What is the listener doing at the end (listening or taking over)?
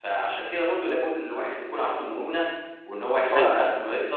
listening